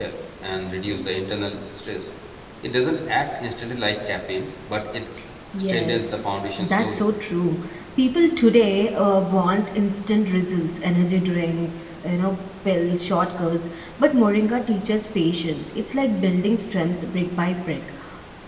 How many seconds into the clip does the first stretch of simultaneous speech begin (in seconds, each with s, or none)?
5.7 s